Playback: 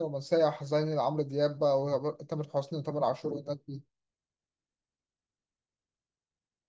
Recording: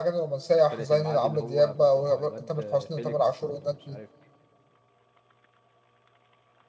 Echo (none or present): present